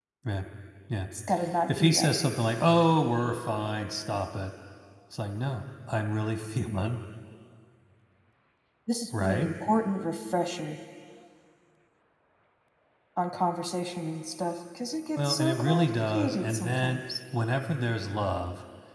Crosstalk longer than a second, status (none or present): present